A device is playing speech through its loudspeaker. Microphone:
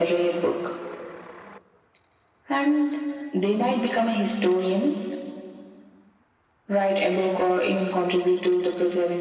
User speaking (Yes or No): No